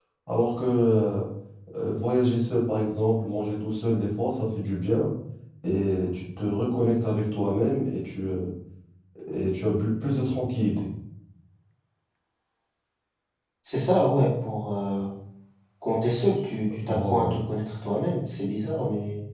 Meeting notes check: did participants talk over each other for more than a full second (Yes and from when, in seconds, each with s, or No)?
No